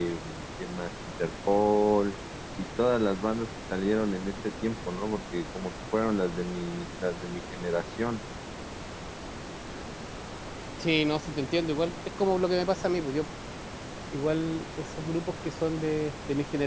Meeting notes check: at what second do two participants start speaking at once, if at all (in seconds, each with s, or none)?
none